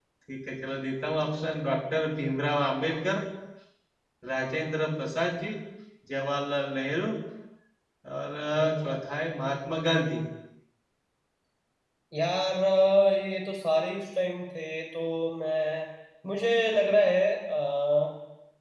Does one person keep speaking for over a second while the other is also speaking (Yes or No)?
No